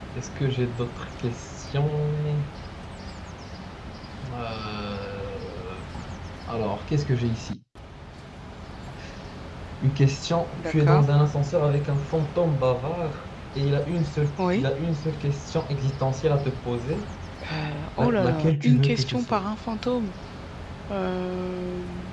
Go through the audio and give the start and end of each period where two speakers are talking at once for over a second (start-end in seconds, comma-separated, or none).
18.0-19.4